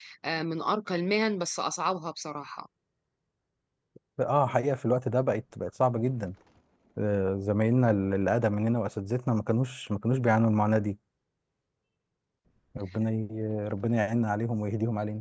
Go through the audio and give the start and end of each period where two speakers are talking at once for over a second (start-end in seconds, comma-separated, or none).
none